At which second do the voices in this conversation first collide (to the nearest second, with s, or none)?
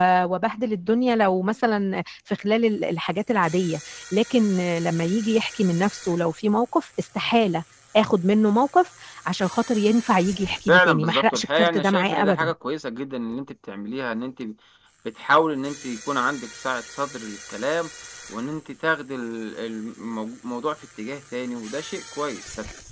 11 s